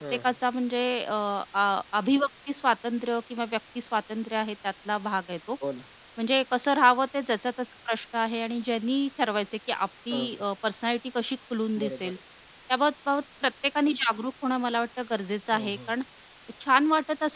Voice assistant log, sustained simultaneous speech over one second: none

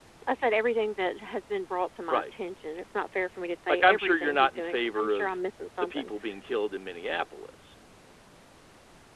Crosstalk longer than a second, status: present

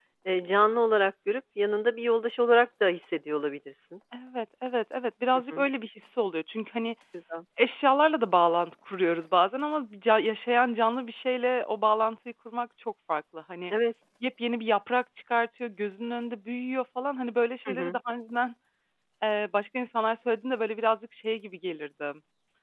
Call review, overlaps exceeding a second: none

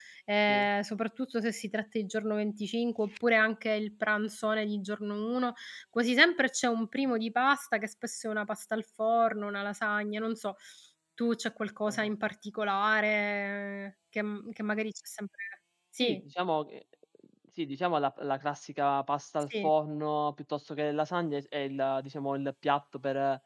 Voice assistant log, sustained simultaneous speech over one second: none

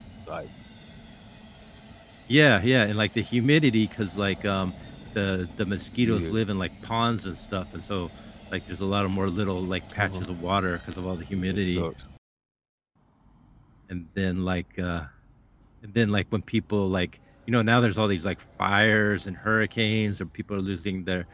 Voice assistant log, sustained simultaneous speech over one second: none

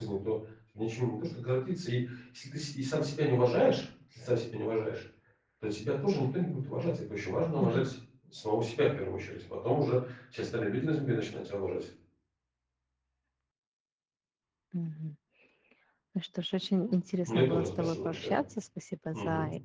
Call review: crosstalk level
present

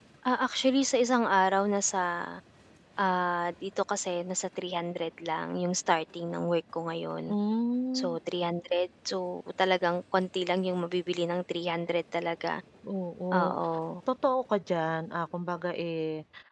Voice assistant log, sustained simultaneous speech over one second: none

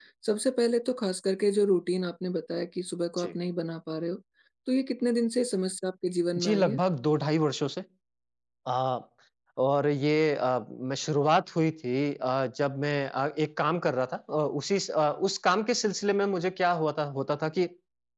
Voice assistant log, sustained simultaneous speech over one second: none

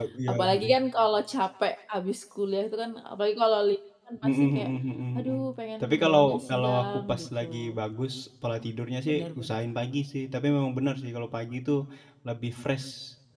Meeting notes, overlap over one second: present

